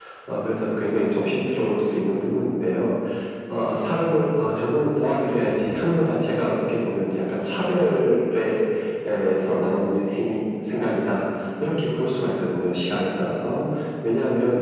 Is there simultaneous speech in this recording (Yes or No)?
No